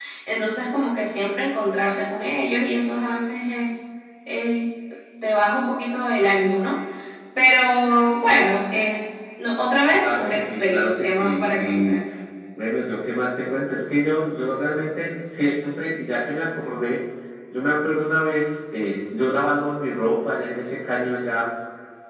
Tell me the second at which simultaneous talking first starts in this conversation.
10.0 s

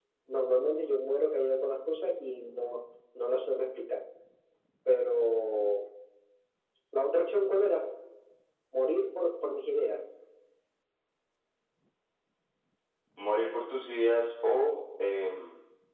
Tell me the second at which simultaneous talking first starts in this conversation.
none

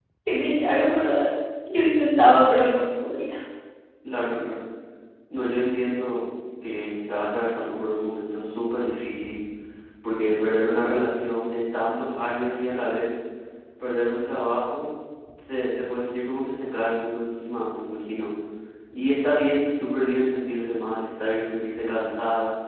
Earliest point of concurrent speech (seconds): none

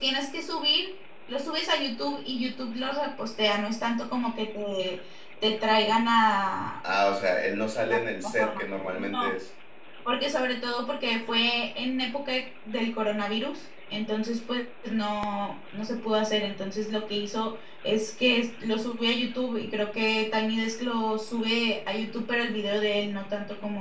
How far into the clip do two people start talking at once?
7.8 s

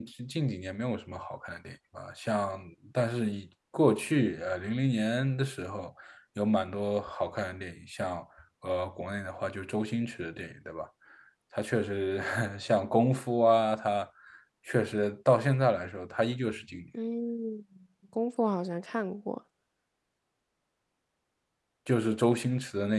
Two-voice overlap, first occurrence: none

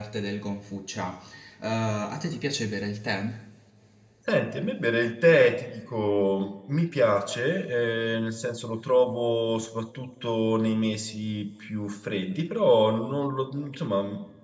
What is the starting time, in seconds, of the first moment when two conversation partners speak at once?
none

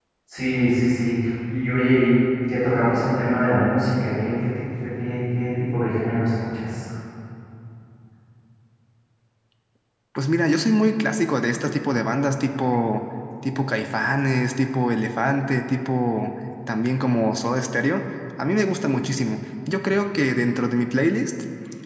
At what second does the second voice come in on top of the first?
none

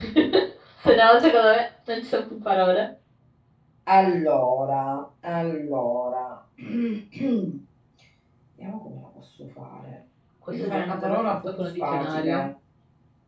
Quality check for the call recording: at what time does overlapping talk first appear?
10.6 s

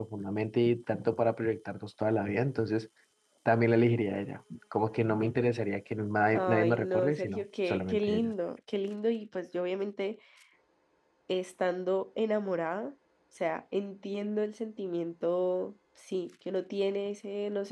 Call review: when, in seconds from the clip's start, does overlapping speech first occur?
6.3 s

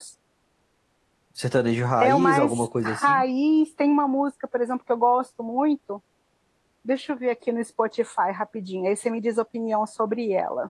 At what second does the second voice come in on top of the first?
2.0 s

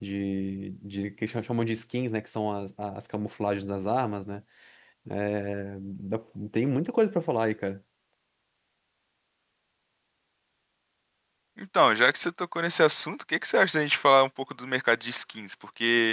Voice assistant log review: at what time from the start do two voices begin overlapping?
none

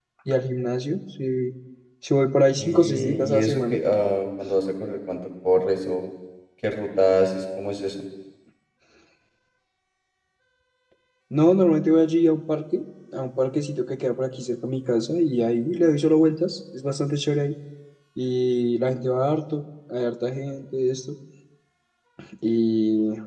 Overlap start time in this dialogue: 2.5 s

